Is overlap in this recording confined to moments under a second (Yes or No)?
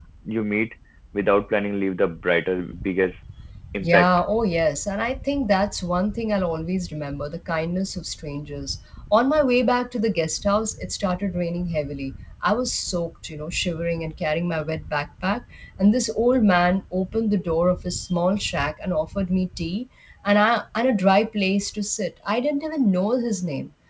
Yes